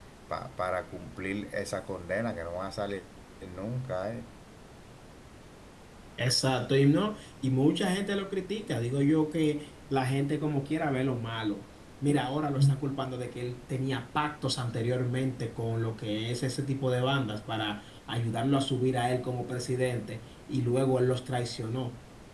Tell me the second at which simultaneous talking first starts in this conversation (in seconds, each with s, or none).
none